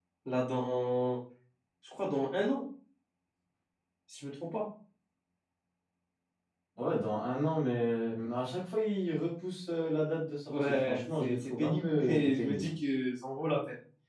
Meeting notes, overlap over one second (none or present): present